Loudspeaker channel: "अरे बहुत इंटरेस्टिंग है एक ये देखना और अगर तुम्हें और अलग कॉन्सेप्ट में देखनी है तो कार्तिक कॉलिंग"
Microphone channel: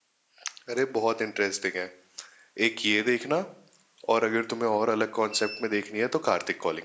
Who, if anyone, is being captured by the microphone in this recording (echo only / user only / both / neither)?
echo only